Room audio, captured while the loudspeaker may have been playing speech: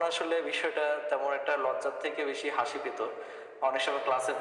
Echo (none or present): present